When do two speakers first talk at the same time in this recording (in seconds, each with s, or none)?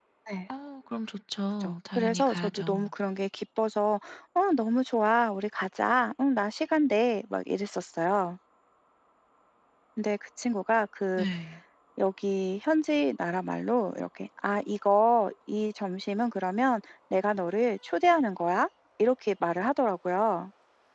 1.6 s